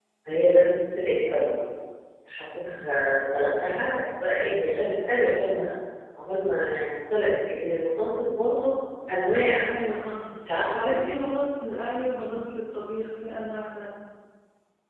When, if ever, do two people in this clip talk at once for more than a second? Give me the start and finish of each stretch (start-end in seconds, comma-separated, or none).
none